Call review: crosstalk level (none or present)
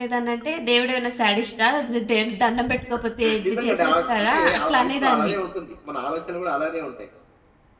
present